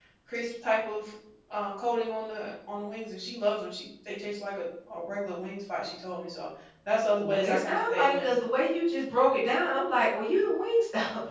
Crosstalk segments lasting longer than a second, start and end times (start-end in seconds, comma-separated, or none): 7.1-8.3